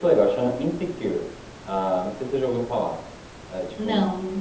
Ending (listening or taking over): listening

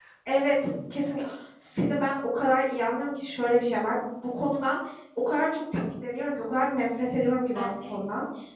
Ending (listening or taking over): listening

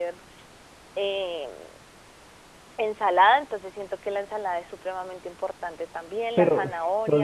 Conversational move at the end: taking over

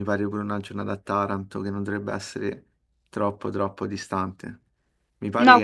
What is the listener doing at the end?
listening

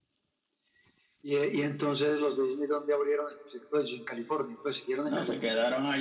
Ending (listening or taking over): taking over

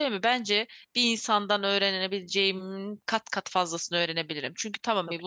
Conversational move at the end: listening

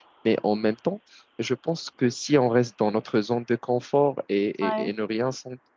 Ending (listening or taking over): listening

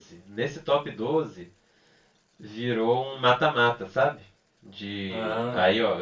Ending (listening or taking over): listening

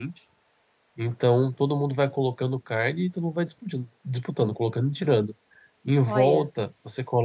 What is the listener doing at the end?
listening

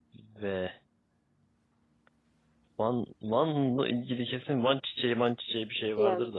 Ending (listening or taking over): taking over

